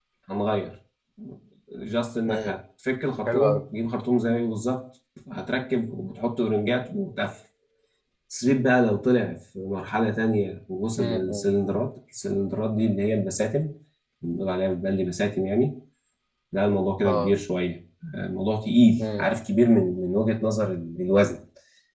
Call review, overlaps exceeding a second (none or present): none